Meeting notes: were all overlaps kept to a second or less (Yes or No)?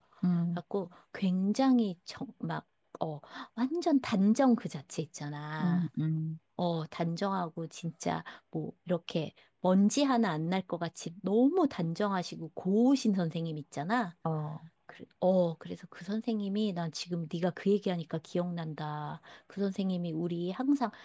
Yes